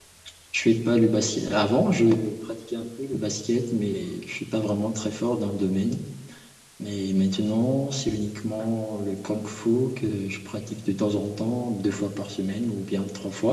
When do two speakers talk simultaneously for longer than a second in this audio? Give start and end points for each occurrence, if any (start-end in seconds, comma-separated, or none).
none